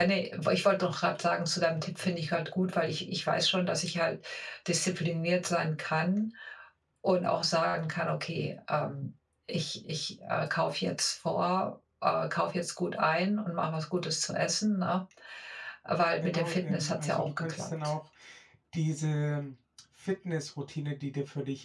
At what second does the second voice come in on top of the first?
16.2 s

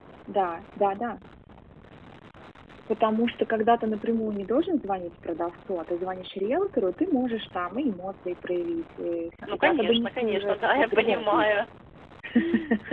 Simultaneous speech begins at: 9.5 s

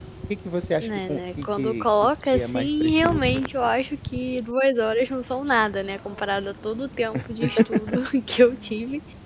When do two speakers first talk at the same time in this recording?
0.8 s

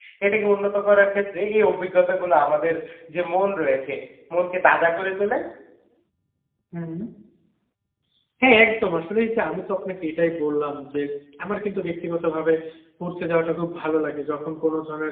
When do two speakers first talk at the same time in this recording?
none

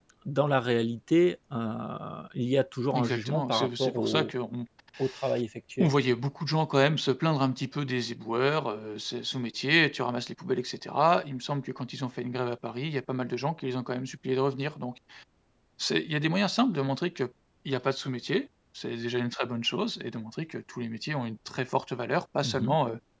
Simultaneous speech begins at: 2.9 s

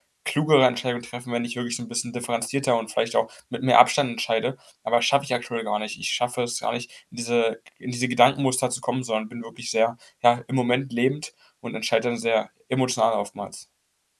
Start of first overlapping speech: none

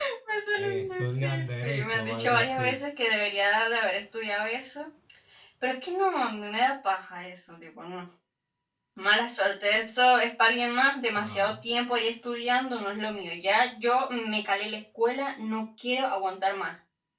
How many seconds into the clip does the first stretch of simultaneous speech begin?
0.6 s

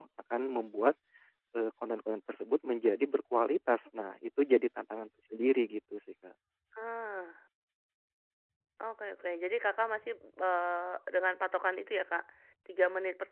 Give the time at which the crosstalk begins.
none

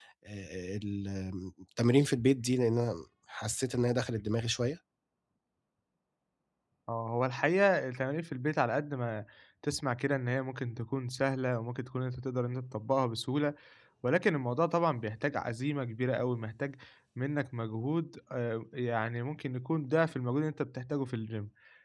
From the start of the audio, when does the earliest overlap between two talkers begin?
none

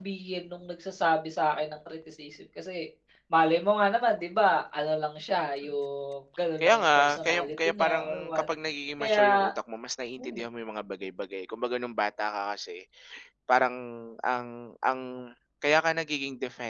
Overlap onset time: 6.6 s

